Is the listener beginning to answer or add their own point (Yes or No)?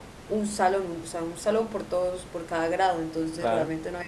No